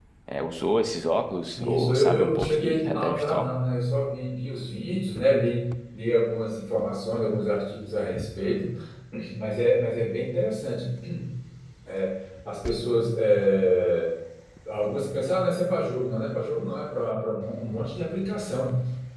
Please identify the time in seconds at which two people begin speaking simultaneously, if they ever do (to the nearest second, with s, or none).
2 s